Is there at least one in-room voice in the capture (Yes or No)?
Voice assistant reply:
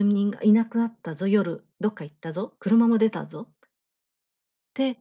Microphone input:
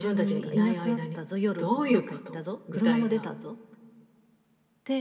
Yes